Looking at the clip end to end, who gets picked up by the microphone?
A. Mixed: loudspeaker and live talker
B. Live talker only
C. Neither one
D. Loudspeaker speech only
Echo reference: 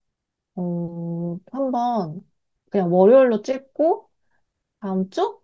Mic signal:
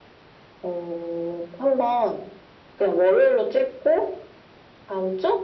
D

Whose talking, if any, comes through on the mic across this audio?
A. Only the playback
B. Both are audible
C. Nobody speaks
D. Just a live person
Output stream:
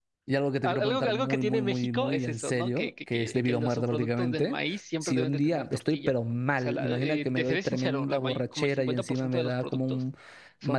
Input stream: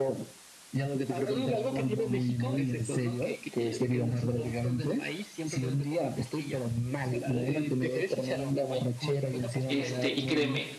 B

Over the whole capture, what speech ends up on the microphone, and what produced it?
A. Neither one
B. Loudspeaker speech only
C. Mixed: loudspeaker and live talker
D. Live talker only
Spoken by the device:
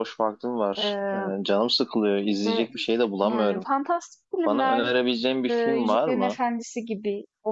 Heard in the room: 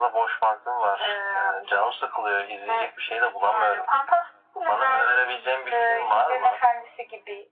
B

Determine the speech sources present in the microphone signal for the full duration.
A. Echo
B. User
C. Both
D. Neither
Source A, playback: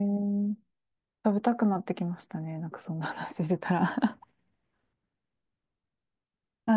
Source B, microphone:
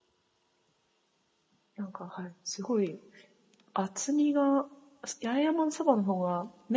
B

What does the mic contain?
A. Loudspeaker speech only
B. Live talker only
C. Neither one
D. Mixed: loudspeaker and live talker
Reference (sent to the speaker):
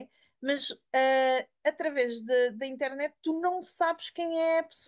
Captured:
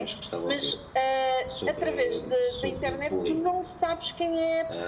D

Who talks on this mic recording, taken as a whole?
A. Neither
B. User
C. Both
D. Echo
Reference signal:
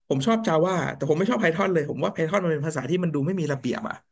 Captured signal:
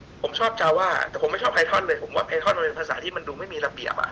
D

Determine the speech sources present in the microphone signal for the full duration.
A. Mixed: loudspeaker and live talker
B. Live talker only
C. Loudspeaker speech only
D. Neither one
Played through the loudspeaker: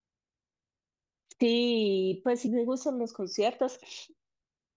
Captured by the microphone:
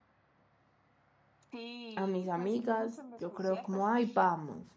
A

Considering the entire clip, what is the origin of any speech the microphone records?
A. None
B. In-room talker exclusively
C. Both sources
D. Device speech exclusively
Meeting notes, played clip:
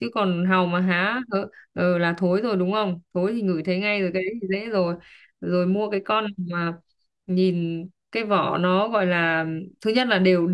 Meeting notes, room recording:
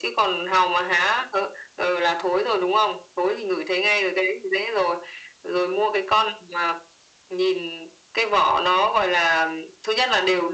D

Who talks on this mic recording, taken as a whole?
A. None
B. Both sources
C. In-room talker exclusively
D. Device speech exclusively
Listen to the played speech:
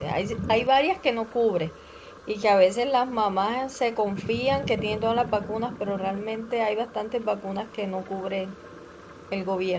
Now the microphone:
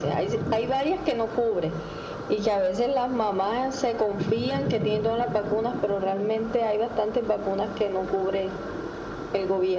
D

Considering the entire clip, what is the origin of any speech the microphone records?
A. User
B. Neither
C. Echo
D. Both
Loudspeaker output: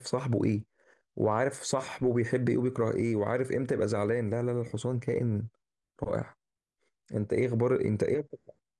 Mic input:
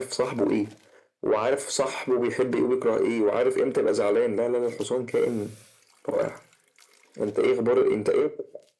C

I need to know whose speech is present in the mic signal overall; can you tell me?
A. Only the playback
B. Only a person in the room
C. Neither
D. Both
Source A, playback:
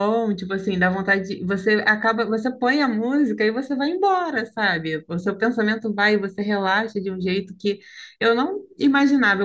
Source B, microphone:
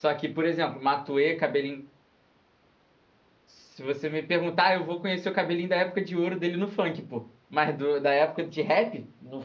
B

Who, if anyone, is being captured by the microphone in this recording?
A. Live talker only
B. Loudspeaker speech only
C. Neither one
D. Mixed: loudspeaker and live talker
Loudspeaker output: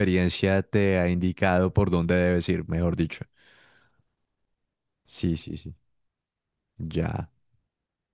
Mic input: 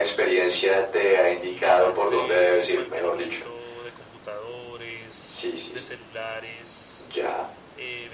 D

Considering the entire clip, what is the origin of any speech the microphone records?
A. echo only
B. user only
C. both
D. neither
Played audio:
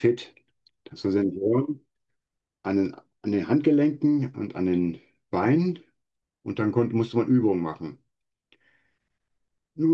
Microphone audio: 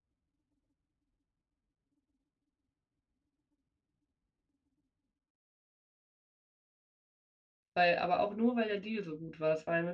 B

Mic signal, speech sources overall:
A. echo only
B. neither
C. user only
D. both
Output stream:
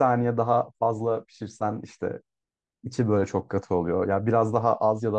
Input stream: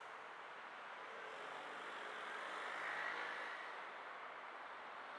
B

